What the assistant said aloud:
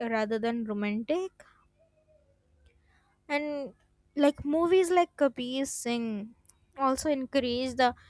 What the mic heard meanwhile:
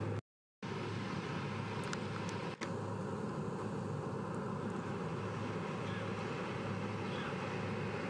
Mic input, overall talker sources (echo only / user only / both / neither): neither